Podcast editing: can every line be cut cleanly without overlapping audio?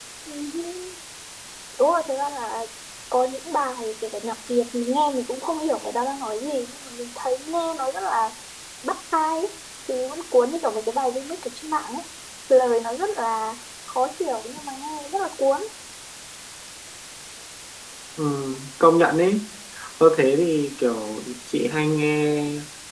Yes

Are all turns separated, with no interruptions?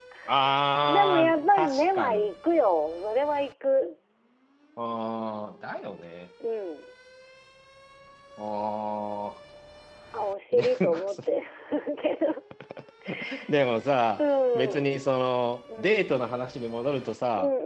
No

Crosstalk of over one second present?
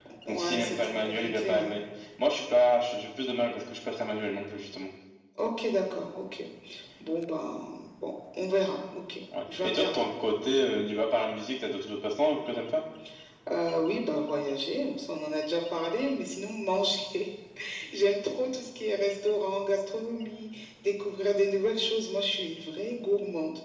Yes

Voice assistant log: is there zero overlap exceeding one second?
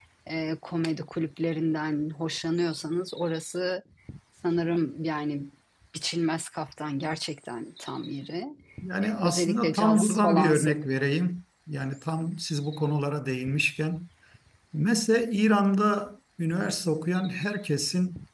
No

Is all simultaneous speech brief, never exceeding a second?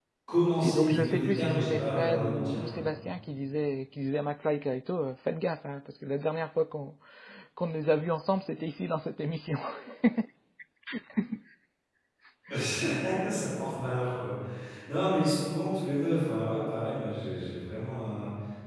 No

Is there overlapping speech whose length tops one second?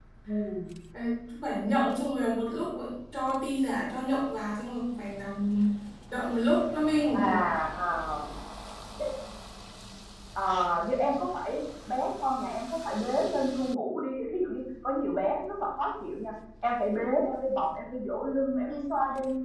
No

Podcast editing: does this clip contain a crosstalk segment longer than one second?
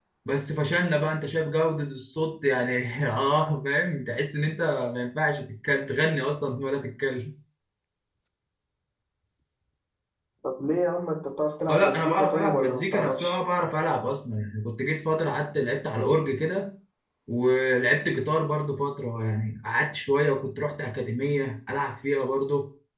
Yes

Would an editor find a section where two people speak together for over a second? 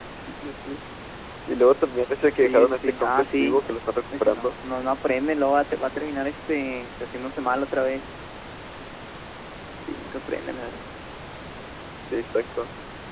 Yes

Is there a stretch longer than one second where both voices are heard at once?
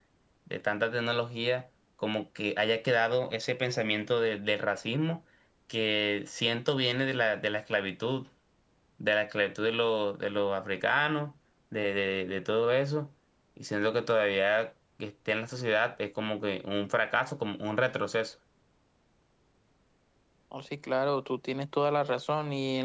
No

